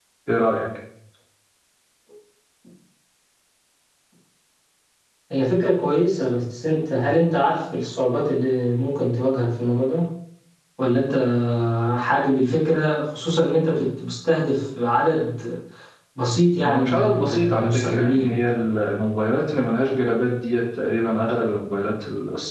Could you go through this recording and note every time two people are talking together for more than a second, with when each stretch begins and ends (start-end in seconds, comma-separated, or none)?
16.6-18.3